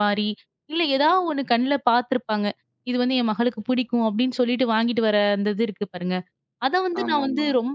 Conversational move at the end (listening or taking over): listening